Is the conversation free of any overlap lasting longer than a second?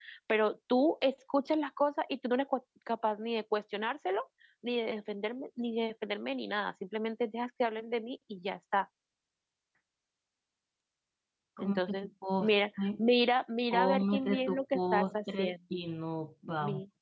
No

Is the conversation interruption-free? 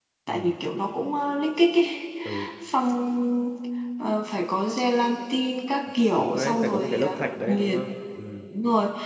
No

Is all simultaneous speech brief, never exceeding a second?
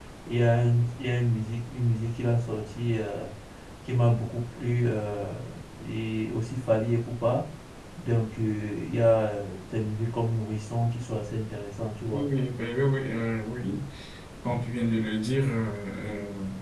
Yes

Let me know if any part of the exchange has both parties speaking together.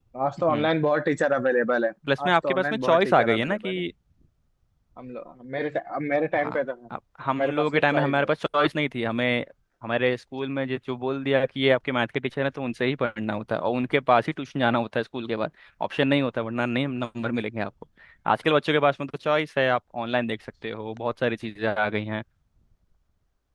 Yes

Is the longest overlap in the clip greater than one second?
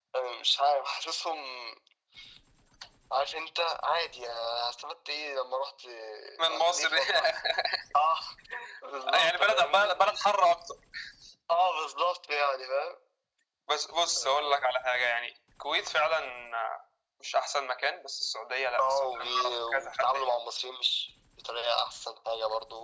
Yes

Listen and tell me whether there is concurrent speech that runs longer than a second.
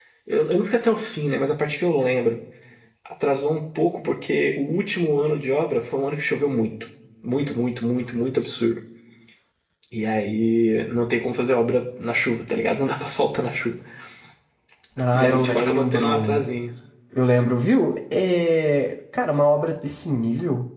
Yes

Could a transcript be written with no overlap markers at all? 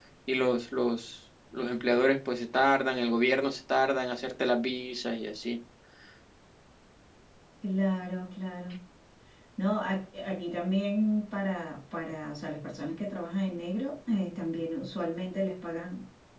Yes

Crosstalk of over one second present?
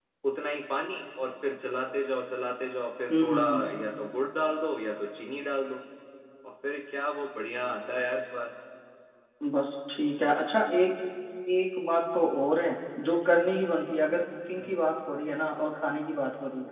No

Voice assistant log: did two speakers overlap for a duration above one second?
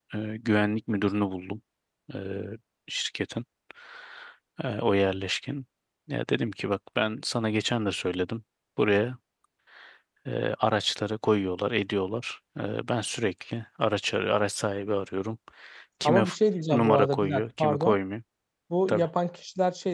Yes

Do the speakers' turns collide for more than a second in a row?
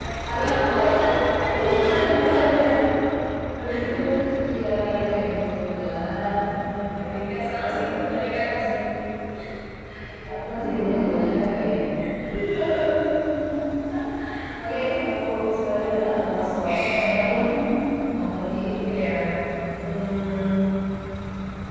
Yes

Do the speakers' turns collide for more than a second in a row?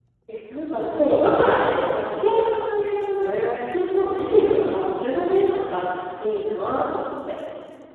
Yes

